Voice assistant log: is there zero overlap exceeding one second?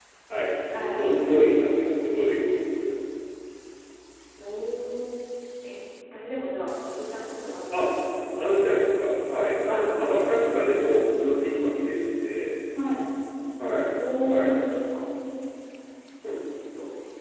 No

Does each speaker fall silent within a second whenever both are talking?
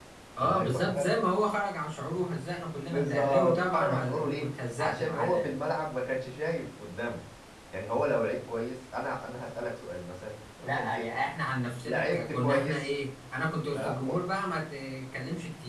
No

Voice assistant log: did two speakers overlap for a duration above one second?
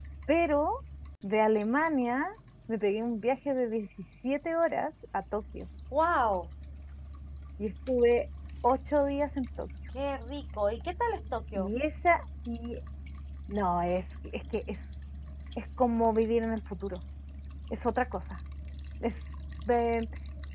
No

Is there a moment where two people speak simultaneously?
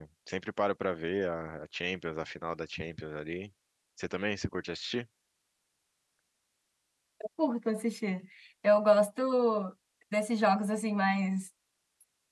No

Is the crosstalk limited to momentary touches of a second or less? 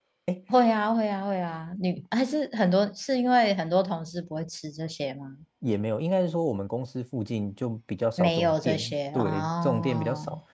No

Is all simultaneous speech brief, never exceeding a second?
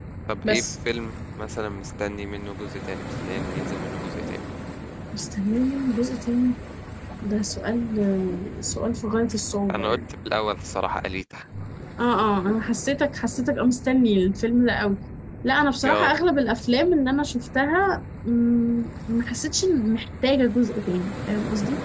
Yes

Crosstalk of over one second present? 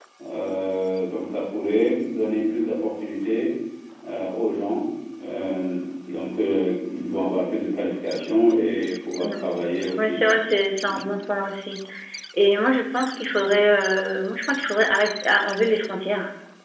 No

